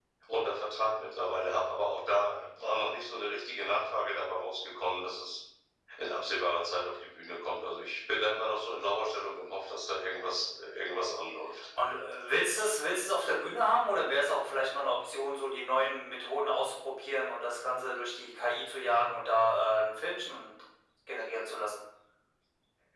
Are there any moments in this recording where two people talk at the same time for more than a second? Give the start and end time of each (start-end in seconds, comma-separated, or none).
none